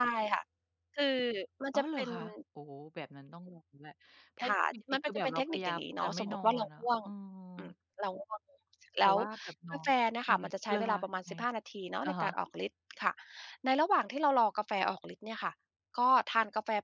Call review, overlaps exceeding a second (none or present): present